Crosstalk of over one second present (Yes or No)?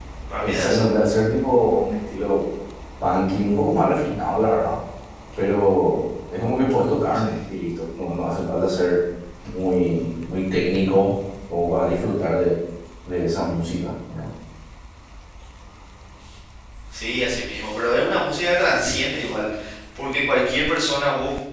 No